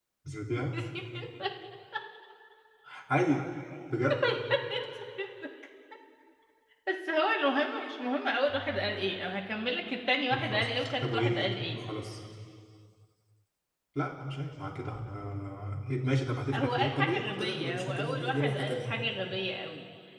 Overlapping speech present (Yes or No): Yes